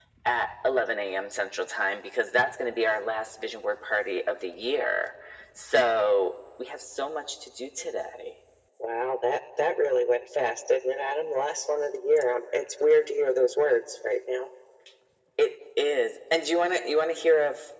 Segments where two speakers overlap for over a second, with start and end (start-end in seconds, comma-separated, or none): none